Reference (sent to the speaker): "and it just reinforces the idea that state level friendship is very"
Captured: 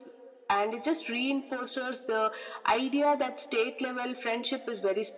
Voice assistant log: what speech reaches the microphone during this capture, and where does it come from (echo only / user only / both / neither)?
echo only